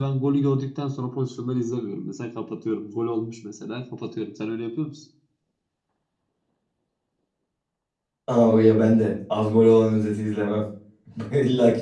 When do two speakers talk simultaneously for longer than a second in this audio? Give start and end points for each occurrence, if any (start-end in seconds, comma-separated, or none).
none